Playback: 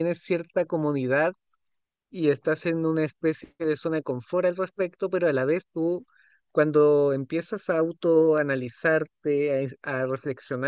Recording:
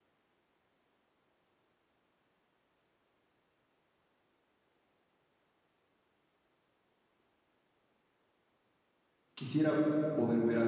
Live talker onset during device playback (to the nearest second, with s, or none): 9 s